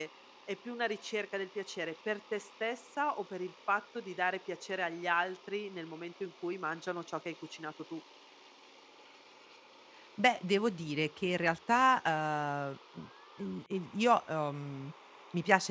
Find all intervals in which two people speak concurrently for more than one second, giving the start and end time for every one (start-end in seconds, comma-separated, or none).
none